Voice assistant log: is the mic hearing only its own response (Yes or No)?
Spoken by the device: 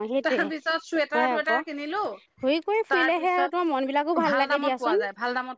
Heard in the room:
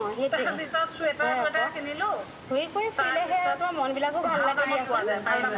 No